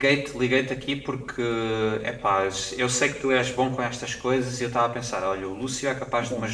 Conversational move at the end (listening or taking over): listening